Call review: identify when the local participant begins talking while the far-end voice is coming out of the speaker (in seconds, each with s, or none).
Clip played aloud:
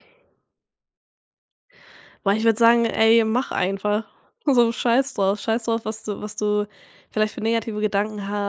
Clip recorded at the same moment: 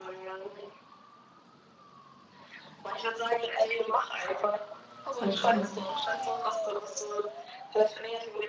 5.2 s